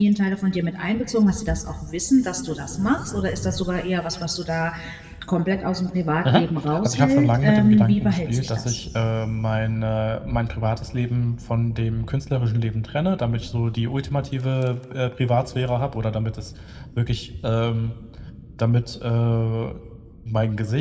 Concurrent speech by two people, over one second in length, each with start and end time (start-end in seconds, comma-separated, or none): 6.8-8.8